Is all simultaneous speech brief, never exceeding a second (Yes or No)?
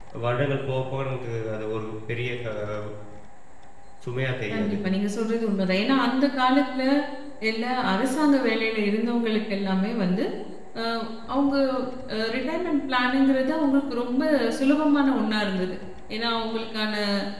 Yes